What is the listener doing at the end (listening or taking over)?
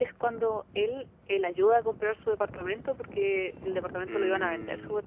listening